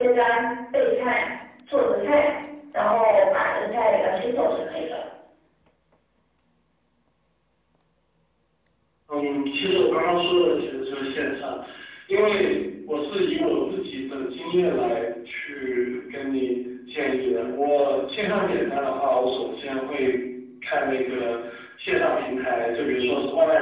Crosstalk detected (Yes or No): No